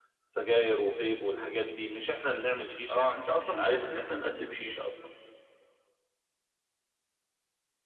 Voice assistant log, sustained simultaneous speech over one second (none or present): present